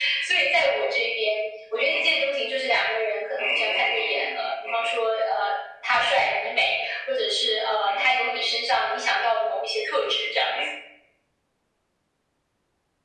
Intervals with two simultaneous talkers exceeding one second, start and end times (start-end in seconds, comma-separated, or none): 3.4-4.9